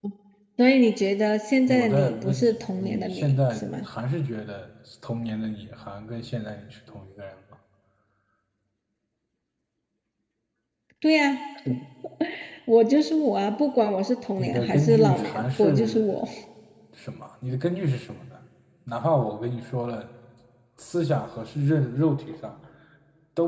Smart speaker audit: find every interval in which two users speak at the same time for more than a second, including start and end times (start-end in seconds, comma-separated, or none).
1.7-3.9, 14.4-16.1